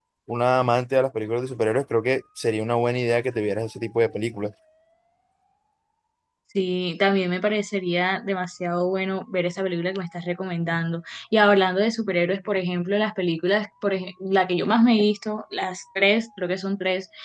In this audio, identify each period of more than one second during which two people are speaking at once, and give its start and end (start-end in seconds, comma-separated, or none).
none